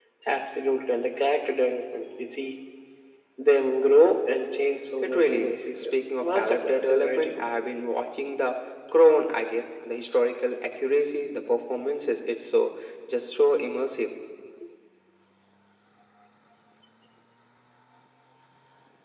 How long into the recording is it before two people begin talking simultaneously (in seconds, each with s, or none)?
5.0 s